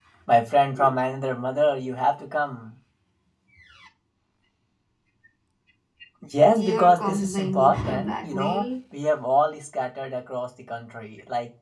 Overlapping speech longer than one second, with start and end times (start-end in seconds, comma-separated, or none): 6.6-8.7